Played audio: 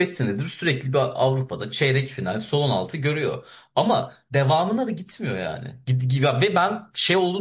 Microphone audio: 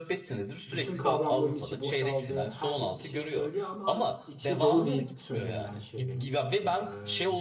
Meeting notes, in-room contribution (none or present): present